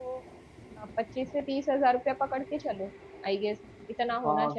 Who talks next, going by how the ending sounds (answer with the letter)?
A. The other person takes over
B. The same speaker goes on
A